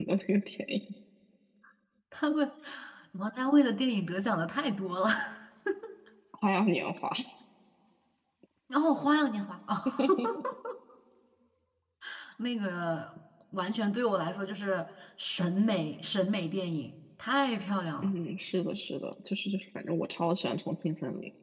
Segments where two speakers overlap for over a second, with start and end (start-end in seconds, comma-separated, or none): none